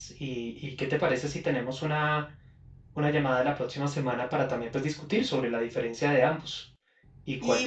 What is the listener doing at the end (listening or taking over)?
taking over